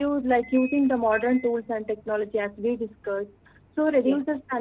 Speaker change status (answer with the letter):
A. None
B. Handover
A